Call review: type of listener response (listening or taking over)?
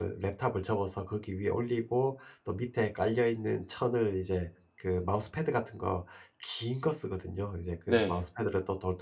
listening